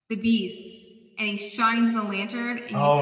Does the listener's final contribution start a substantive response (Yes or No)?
Yes